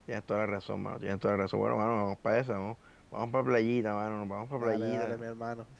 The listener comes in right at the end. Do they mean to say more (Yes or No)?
Yes